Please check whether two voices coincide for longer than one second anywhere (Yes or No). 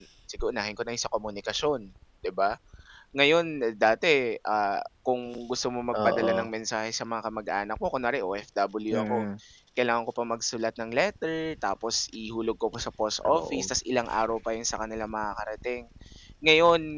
No